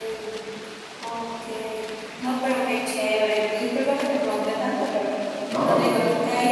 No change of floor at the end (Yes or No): Yes